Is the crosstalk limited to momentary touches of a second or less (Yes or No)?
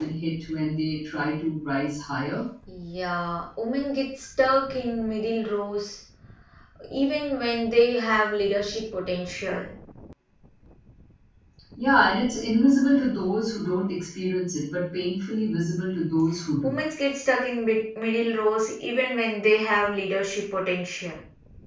Yes